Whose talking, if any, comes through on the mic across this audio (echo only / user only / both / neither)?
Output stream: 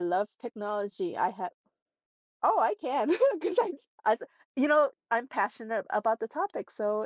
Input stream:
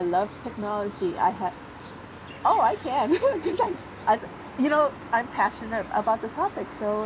echo only